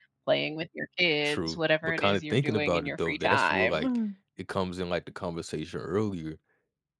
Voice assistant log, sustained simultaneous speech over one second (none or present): present